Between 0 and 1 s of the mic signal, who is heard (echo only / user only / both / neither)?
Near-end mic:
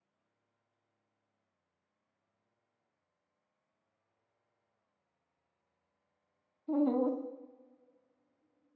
neither